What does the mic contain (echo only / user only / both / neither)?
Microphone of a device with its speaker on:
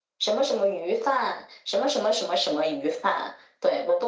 echo only